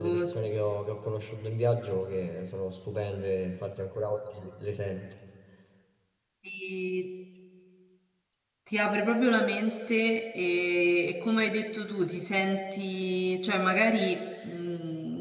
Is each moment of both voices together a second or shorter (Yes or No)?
Yes